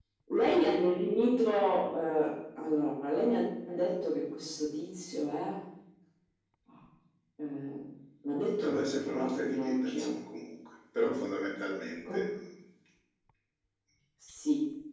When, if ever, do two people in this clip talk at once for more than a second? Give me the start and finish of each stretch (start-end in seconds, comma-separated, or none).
8.6-10.1